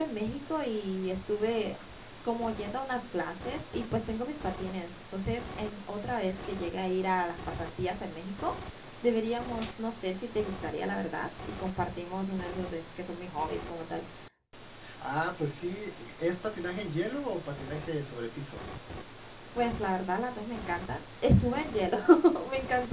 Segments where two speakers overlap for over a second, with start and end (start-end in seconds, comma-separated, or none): none